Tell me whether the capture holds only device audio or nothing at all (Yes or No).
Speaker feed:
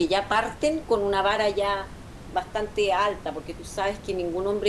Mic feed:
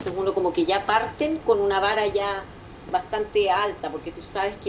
Yes